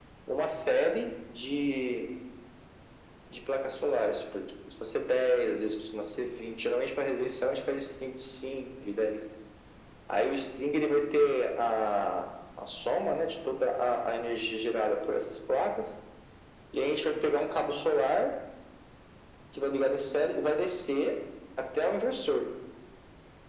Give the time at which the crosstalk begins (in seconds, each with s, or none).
none